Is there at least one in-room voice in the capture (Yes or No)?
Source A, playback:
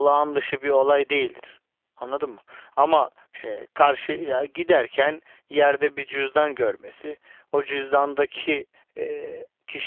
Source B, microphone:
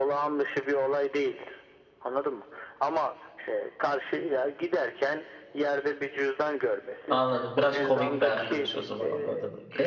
Yes